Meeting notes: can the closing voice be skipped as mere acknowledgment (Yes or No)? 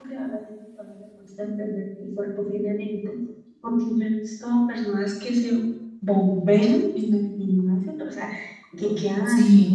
Yes